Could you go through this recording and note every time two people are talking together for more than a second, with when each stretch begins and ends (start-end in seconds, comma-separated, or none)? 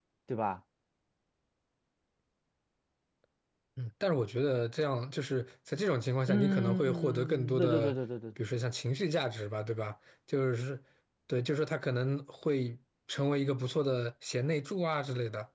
6.3-7.9